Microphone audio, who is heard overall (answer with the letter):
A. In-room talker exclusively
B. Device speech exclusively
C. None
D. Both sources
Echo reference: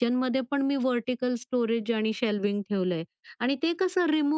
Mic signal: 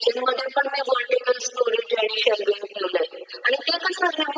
B